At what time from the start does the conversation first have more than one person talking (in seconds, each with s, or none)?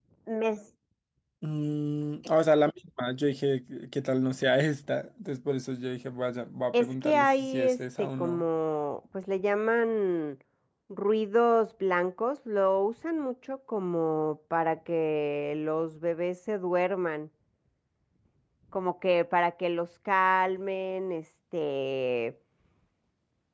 6.7 s